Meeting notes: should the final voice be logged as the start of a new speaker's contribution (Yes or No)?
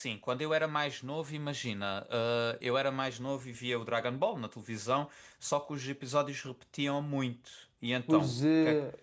Yes